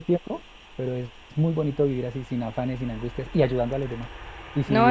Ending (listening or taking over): taking over